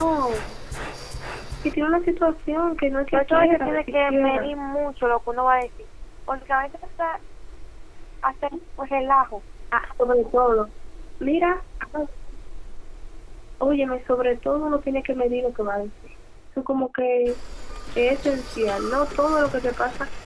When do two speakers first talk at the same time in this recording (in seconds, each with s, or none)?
3.1 s